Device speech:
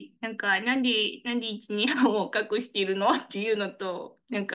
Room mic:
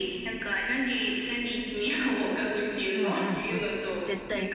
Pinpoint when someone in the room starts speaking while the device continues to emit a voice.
2.9 s

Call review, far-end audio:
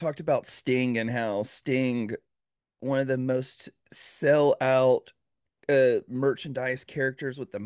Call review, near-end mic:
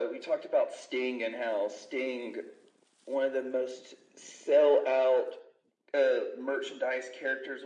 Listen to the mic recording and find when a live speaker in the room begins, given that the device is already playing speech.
none

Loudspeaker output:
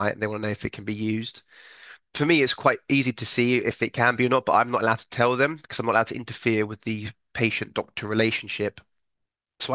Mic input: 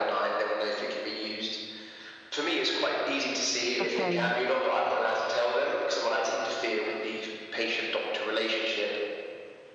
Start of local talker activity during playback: 3.8 s

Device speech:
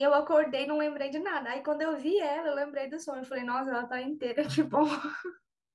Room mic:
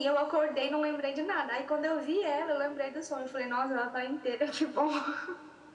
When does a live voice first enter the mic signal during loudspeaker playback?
none

